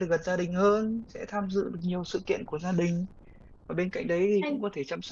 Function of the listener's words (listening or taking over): listening